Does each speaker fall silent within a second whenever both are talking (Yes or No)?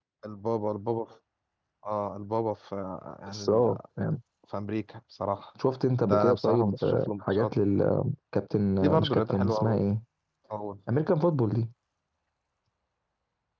No